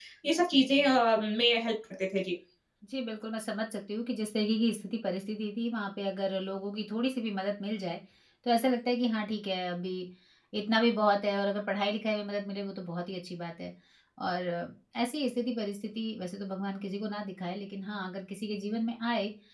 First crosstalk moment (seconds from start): none

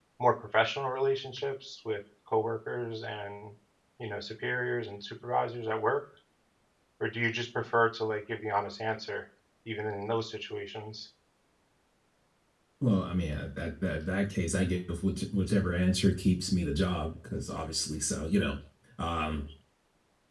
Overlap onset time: none

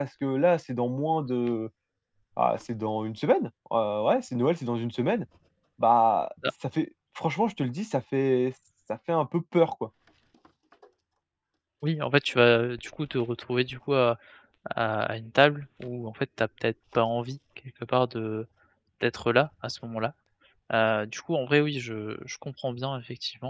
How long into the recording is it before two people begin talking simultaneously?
none

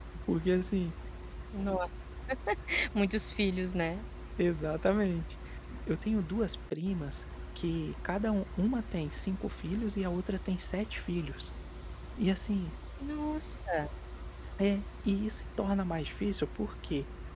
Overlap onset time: none

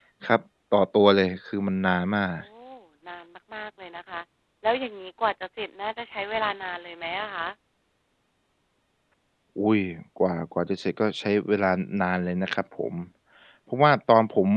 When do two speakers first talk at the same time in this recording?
none

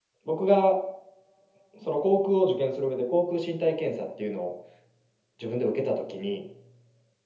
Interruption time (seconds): none

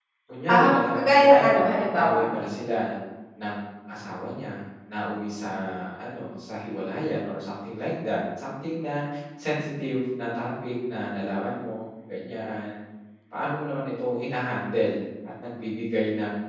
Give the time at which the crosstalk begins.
0.5 s

